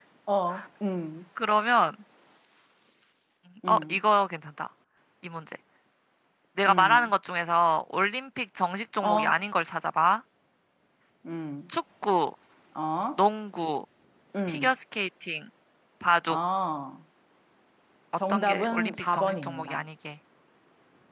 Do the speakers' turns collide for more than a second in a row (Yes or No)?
Yes